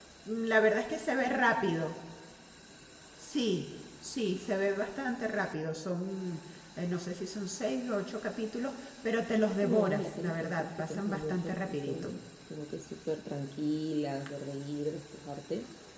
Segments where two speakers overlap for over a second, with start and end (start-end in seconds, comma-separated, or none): 9.3-12.1